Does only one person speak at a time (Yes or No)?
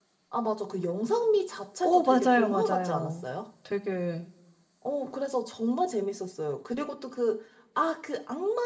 No